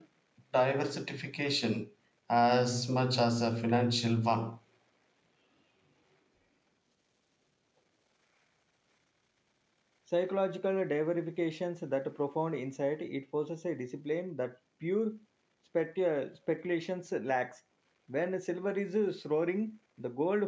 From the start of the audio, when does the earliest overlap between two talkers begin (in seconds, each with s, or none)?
none